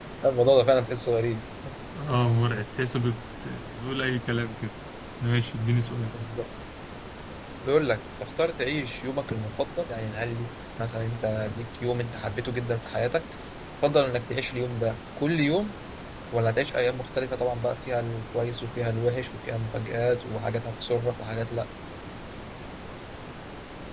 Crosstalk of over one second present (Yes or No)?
No